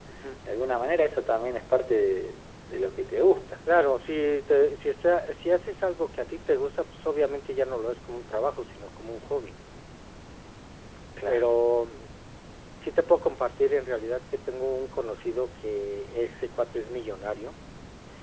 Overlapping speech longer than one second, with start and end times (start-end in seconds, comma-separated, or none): none